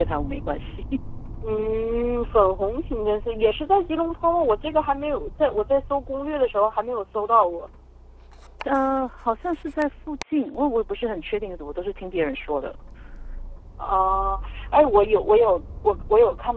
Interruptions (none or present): none